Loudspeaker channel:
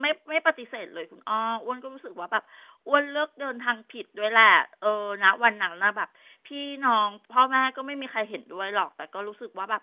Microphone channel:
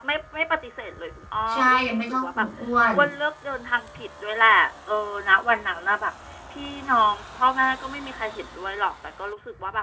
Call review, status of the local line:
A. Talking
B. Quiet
A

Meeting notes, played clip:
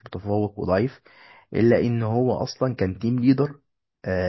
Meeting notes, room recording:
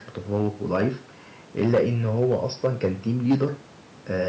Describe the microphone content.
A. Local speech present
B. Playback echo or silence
B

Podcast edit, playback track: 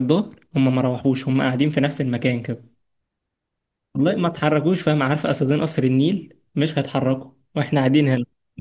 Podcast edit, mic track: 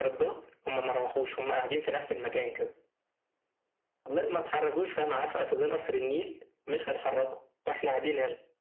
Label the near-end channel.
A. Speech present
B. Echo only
B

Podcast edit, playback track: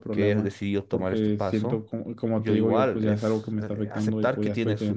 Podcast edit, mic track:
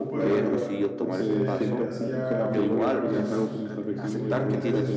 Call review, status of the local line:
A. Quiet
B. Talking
B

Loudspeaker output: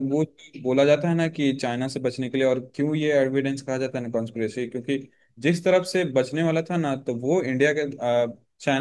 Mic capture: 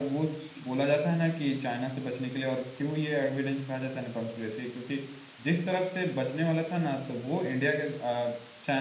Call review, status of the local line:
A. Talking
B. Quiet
B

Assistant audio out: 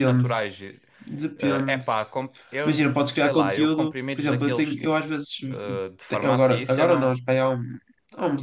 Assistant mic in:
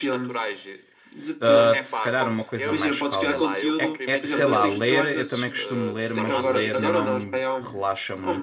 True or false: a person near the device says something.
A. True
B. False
A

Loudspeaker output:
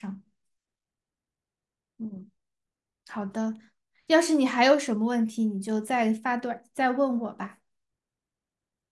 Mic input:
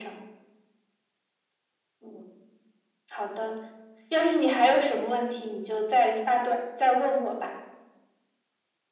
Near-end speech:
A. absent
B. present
A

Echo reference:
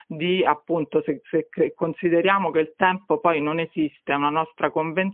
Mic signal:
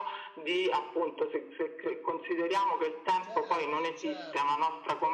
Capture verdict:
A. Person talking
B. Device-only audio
A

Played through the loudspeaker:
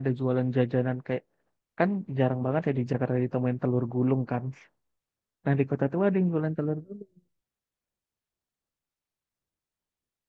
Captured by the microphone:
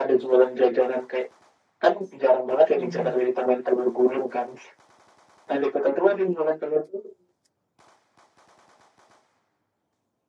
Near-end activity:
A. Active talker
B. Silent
A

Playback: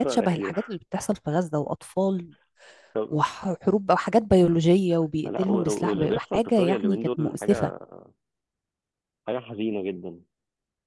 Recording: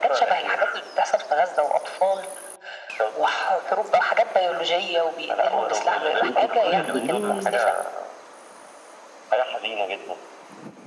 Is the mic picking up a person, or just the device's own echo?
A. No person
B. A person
B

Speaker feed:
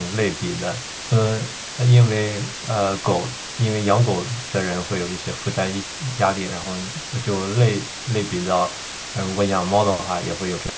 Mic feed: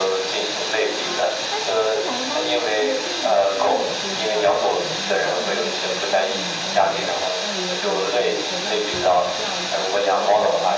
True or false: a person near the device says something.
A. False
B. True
B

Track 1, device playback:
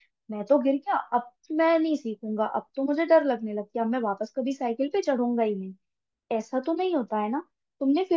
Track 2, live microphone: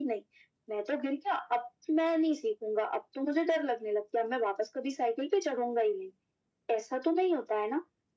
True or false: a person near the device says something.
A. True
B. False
B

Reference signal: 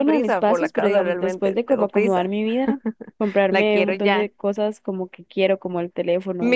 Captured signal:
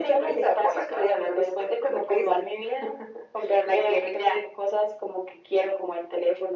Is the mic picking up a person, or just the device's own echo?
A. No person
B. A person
A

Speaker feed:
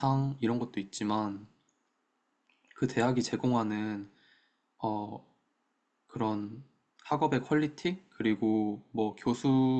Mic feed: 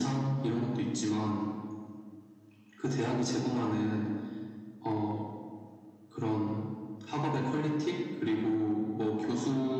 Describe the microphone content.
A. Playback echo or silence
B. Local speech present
A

